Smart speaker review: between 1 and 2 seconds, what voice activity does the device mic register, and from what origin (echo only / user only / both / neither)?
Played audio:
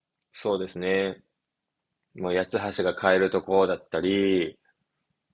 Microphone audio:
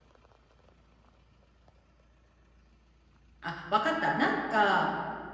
neither